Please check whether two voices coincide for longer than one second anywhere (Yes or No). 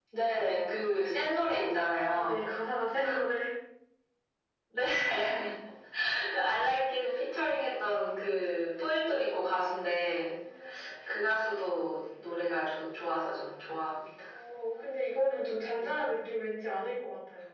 No